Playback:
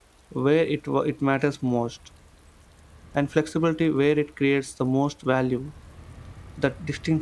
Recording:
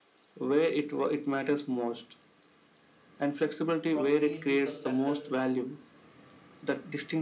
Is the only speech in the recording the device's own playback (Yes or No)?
No